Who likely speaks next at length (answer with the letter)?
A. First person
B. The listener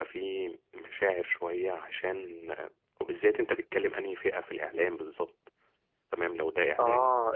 B